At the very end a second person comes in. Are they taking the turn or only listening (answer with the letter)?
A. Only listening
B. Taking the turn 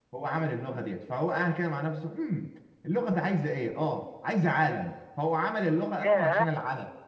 A